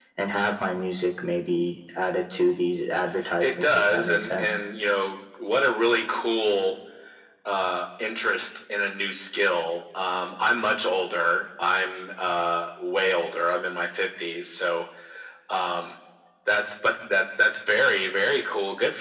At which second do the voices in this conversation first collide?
3 s

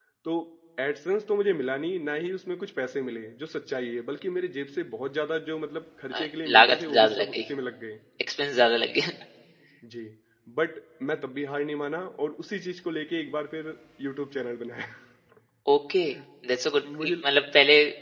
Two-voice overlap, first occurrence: 6 s

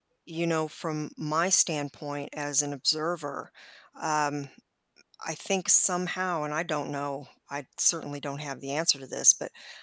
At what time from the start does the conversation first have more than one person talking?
none

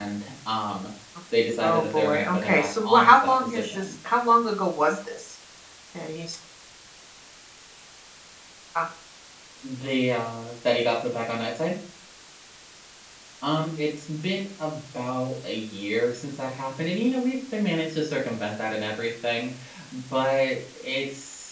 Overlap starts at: 2 s

